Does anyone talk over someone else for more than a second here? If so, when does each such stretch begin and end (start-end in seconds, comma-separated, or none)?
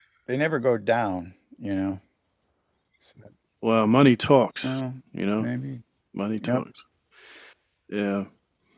none